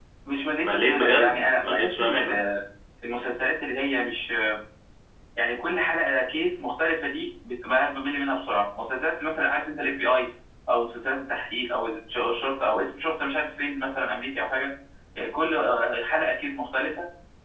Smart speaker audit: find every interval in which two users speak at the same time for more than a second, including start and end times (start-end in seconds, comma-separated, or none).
0.6-2.4